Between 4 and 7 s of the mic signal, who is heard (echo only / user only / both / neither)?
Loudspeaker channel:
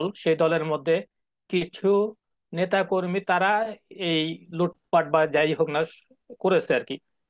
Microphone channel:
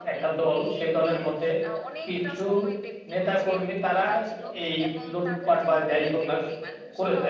both